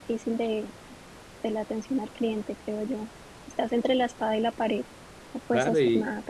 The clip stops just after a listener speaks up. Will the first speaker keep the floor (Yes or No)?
No